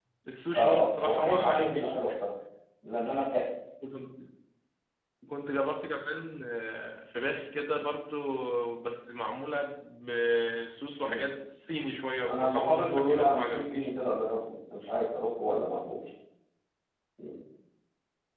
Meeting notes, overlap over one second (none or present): present